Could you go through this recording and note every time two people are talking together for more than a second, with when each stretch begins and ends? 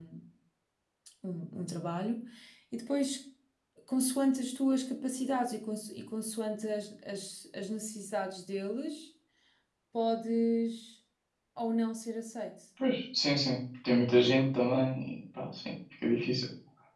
none

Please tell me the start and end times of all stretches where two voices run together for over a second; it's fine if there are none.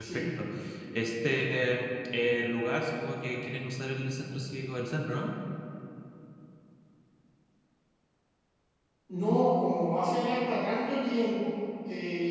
none

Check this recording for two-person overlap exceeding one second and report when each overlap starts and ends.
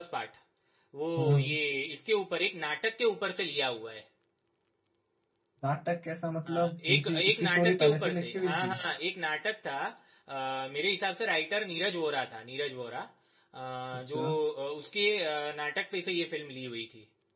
6.5-8.7

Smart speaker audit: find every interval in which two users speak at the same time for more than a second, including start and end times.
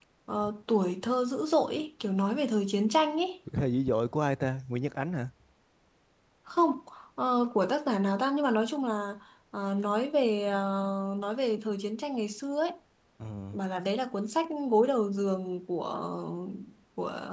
none

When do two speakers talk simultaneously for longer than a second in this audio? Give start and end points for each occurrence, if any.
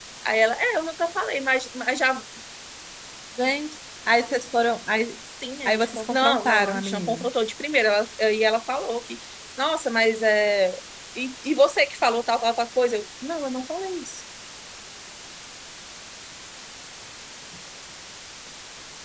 5.7-7.3

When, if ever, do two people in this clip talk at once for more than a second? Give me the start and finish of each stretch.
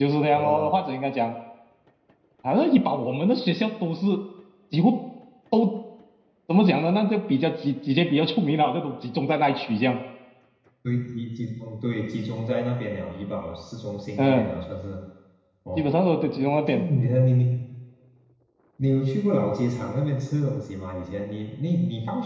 none

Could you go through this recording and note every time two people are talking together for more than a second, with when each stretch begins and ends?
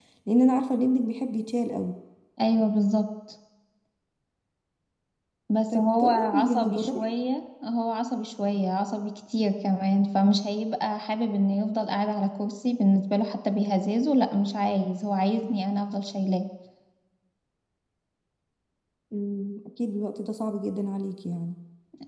5.7-7.0

